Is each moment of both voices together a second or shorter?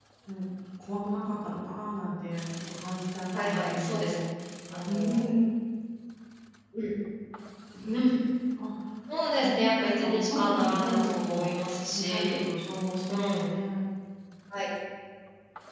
No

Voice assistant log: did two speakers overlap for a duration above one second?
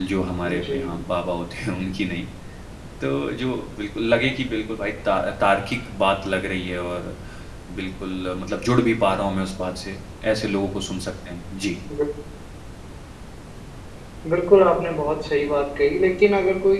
No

